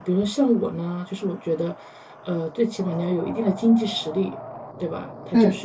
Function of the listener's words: listening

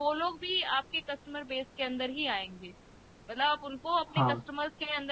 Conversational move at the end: listening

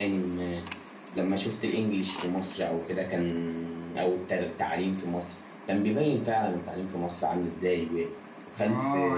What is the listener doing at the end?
taking over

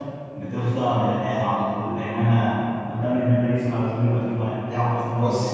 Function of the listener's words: listening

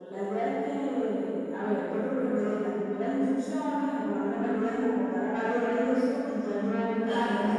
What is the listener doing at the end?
taking over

